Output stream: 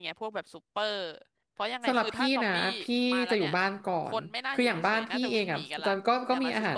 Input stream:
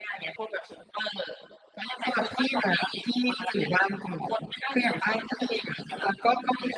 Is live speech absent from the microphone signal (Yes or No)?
Yes